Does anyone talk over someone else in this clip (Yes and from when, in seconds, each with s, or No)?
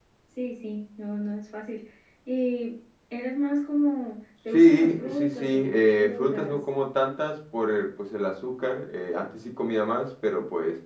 Yes, from 4.5 s